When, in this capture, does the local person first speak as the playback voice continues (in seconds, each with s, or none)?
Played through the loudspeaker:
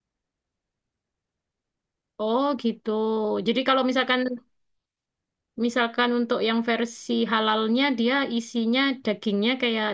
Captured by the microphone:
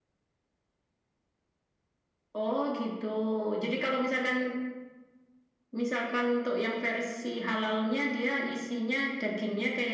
none